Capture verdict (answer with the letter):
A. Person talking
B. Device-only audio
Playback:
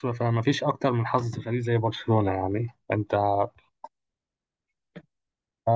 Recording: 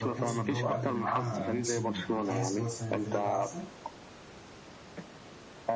A